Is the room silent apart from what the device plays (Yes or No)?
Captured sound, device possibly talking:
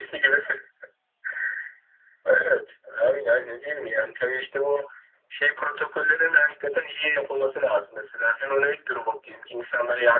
Yes